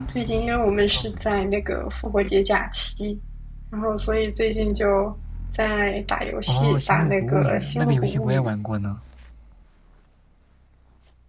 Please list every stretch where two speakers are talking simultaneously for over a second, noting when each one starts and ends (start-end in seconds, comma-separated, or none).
6.5-8.5